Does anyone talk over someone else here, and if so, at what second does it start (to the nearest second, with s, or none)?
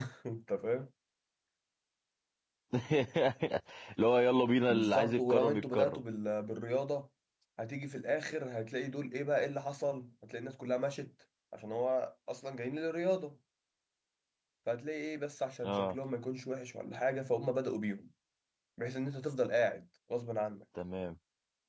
5 s